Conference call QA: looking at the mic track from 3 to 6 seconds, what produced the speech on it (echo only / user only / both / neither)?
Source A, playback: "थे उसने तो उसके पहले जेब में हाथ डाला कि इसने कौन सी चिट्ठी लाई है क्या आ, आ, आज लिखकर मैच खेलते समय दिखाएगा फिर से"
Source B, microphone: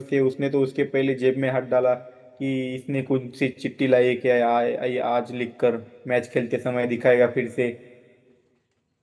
echo only